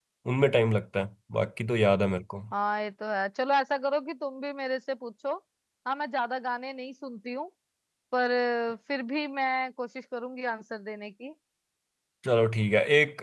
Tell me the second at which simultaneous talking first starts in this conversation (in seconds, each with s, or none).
none